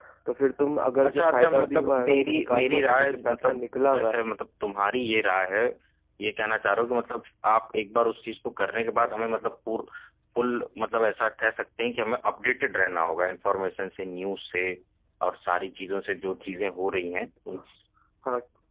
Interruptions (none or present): present